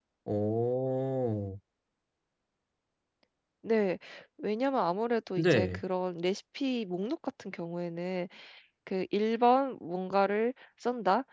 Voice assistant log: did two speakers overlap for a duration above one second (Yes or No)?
No